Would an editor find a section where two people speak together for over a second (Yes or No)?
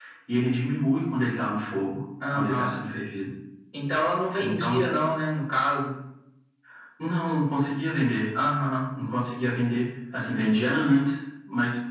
No